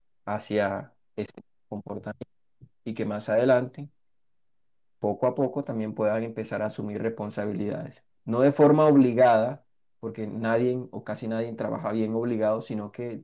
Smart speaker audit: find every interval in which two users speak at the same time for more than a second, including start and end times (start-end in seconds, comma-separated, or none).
none